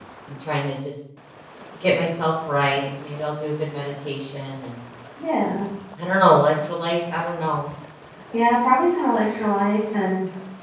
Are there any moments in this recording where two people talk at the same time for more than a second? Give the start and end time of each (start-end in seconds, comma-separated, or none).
none